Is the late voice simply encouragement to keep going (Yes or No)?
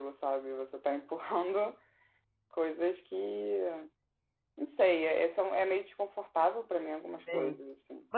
No